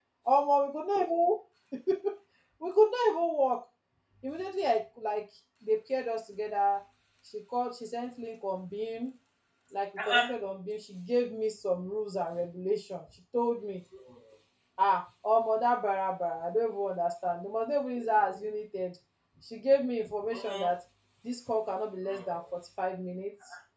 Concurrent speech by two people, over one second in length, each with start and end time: none

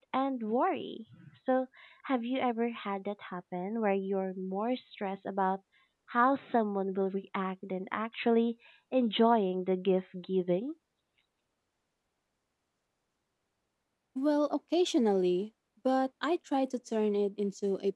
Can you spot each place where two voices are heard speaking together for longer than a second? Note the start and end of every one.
none

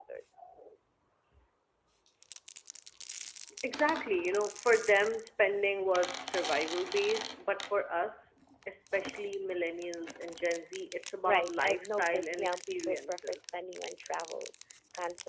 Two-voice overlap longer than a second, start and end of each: 11.2-13.4

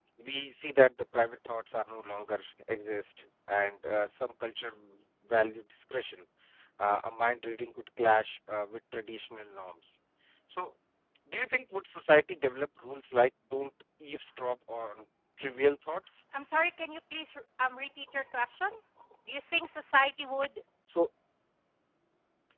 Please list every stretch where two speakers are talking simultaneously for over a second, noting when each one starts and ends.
none

